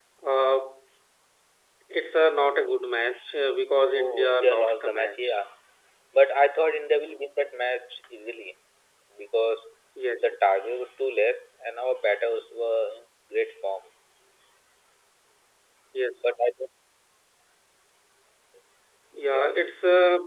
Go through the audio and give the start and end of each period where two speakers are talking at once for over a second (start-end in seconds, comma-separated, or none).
3.9-5.2